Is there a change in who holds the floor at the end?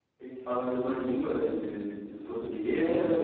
Yes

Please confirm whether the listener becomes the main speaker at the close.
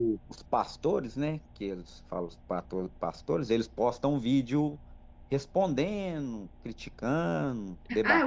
Yes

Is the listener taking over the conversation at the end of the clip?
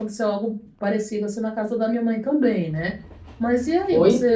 No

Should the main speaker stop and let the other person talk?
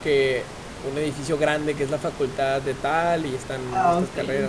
No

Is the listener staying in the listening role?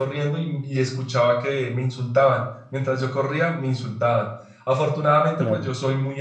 Yes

